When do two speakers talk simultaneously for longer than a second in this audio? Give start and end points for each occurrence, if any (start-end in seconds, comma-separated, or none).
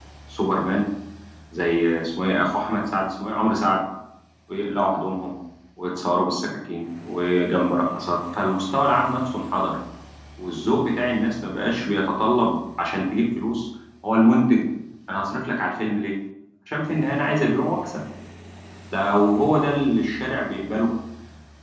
none